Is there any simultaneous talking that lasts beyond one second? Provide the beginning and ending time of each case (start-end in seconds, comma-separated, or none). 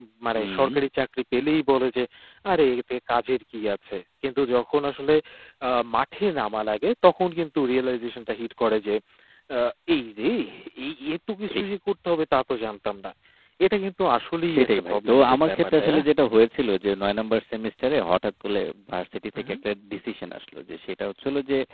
14.5-16.0